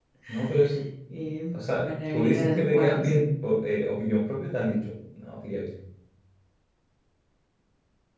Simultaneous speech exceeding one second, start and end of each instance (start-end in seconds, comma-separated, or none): 1.5-3.1